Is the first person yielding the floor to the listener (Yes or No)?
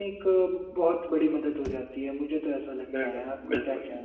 Yes